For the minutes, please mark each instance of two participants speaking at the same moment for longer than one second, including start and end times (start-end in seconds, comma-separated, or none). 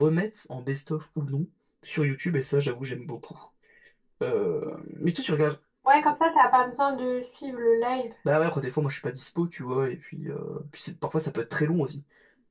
none